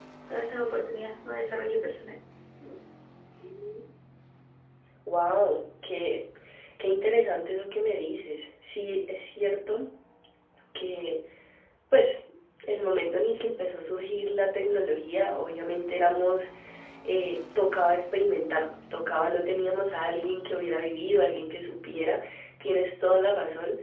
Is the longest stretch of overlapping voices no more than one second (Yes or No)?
Yes